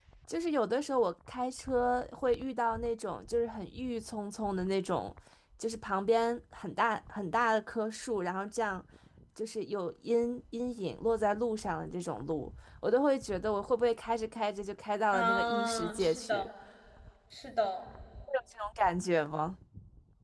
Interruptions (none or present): present